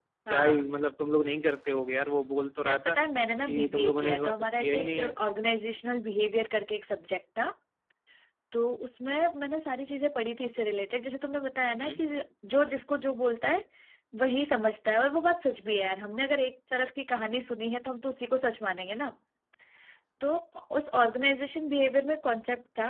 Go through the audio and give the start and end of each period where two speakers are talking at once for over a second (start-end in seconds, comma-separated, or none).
3.5-5.2